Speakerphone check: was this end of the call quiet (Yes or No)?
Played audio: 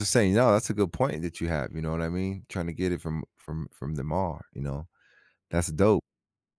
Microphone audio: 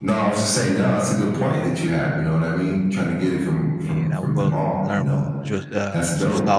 No